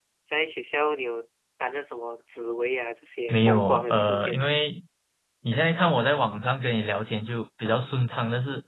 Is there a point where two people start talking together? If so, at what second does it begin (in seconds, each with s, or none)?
3.3 s